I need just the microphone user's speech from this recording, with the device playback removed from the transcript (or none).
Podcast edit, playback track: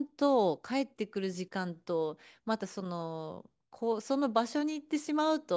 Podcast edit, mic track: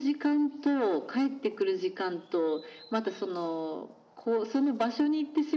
none